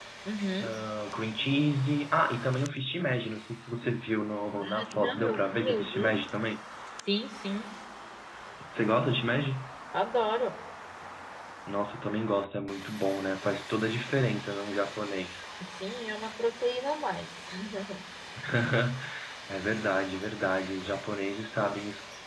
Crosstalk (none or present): present